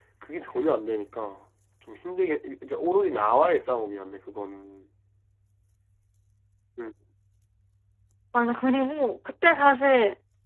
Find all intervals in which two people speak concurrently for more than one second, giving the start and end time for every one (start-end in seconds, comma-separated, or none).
none